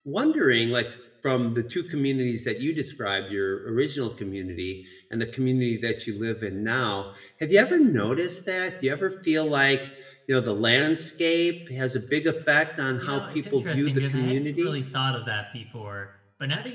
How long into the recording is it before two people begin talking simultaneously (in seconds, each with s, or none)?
13.0 s